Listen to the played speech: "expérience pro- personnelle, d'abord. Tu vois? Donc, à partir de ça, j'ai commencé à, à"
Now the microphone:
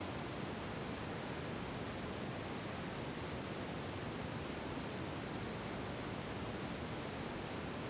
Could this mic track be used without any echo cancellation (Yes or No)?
Yes